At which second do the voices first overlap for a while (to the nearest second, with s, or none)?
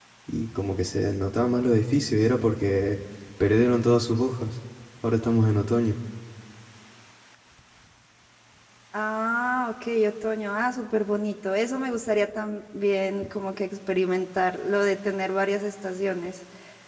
none